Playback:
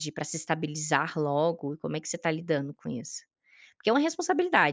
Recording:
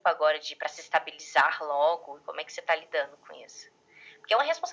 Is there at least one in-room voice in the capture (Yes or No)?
No